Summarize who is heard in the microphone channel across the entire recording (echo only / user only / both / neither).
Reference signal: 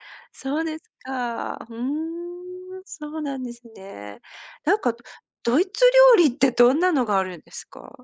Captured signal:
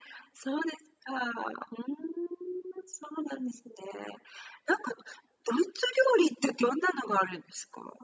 echo only